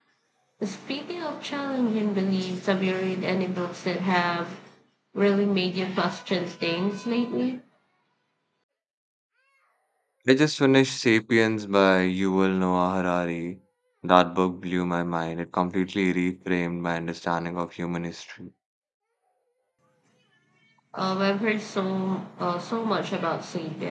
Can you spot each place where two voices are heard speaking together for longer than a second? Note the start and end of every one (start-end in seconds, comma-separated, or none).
none